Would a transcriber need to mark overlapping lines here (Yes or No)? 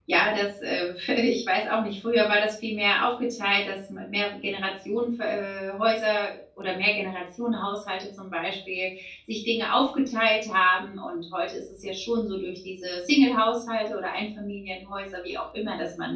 No